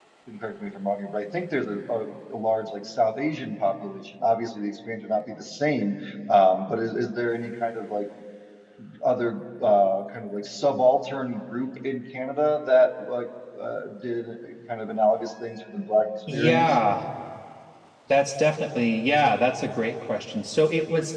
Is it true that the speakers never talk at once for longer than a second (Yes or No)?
Yes